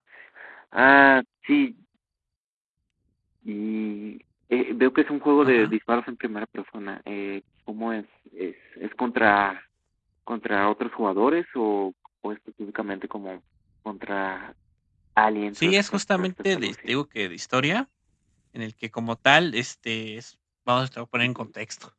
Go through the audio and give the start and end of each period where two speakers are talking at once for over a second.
15.6-16.9

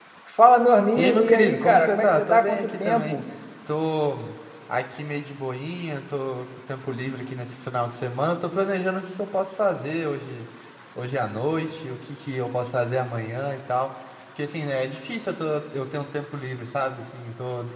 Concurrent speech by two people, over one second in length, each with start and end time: 1.0-3.2

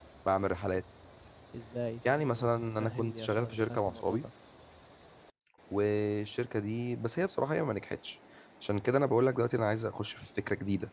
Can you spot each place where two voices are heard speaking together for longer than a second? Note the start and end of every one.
2.8-4.2

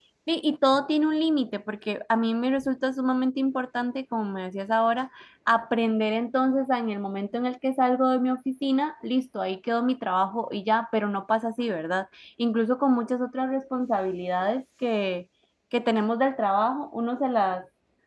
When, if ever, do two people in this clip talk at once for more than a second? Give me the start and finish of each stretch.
none

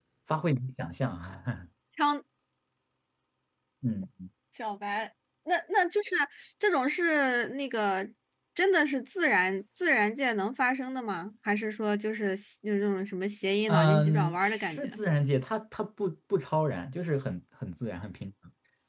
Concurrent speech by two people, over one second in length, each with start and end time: 13.7-14.9

